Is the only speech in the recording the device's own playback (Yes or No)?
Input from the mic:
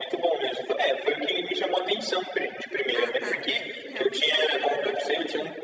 No